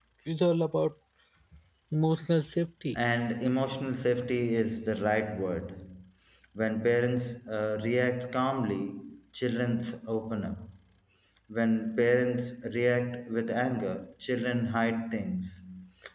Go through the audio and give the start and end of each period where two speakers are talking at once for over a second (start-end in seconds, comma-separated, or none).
none